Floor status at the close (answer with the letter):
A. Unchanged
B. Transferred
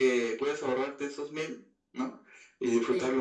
A